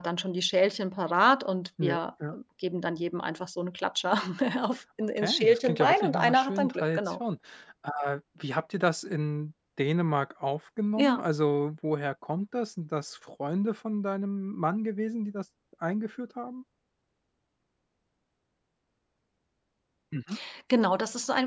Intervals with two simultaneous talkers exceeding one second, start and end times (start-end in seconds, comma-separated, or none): 5.2-7.0